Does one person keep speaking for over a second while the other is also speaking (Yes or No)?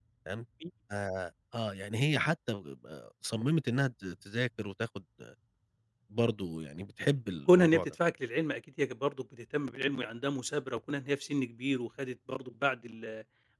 No